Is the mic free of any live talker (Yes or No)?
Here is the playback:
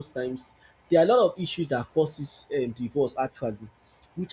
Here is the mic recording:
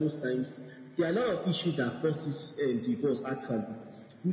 Yes